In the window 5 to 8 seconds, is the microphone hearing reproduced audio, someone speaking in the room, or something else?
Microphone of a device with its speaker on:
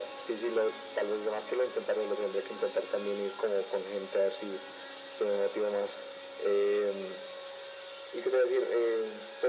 echo only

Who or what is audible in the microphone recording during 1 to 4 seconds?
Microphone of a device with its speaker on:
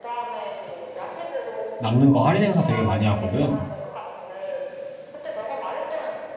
both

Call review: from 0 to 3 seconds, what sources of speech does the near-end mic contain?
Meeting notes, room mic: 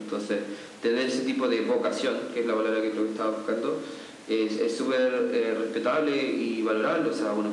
echo only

